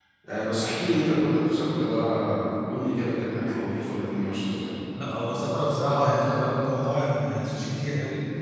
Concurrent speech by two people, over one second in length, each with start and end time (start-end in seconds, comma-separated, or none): none